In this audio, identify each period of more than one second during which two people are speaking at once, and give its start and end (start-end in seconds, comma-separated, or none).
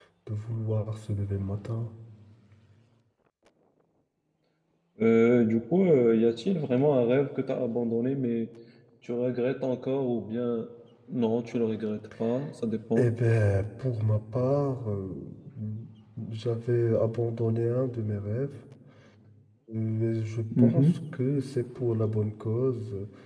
none